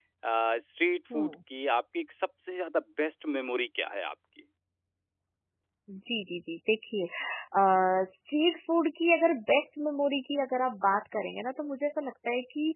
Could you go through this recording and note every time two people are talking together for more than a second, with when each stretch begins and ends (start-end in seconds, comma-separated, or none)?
none